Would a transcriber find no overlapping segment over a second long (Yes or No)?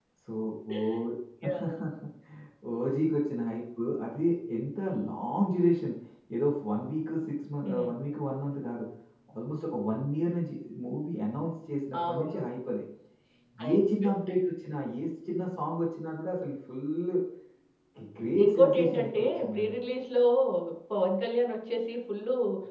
No